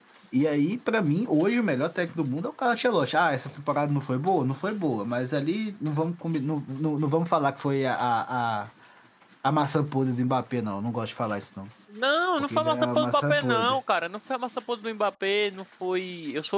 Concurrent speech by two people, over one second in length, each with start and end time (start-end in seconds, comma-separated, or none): 12.4-13.8